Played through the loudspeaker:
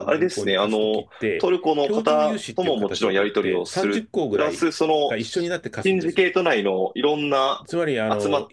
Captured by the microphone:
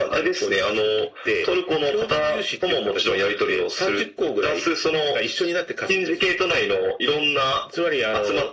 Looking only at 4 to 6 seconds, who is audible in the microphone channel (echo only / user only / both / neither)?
echo only